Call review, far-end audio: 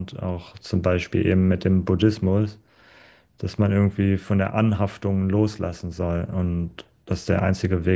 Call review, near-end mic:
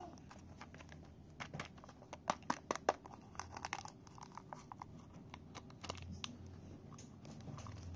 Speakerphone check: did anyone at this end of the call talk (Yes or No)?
No